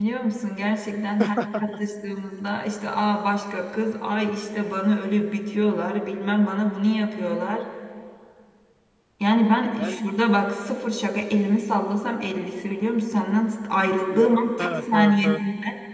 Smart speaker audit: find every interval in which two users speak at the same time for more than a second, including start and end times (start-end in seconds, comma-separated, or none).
14.1-15.3